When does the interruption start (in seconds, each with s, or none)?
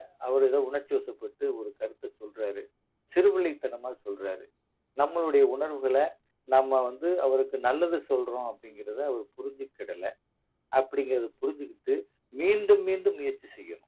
none